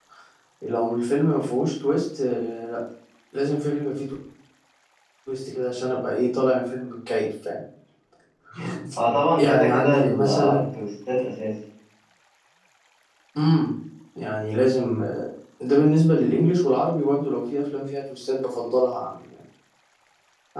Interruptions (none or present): present